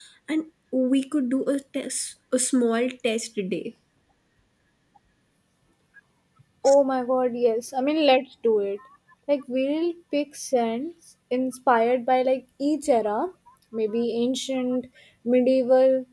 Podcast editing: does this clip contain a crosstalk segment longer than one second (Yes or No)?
No